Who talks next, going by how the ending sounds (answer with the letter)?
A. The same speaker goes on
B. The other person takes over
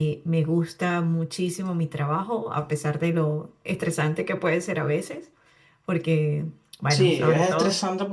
B